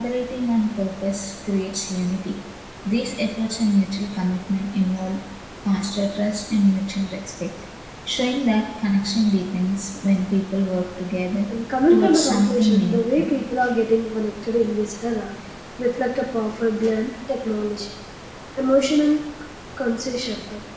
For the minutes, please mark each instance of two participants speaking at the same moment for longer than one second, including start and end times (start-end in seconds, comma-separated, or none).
11.9-13.3